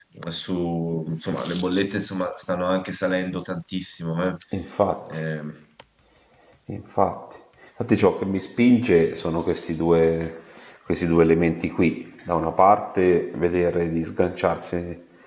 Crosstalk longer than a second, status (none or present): none